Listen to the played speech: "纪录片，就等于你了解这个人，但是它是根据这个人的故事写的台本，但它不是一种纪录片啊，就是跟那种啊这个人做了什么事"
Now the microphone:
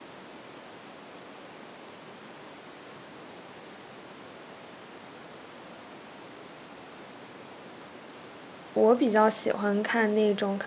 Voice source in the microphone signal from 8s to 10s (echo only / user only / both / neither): user only